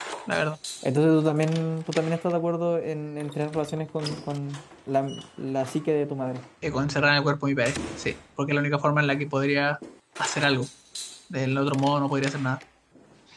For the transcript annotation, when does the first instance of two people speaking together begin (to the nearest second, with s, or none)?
none